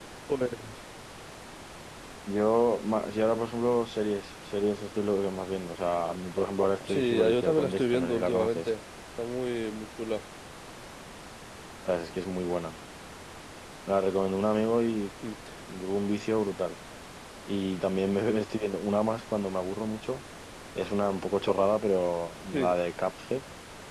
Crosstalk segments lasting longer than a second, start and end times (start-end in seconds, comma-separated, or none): 6.9-8.7